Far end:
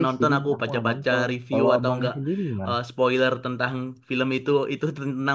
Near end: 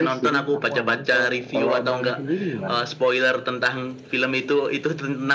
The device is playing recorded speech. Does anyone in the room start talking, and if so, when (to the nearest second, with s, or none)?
none